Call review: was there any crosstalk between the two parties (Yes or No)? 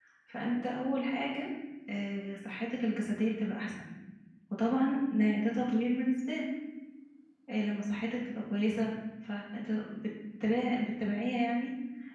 No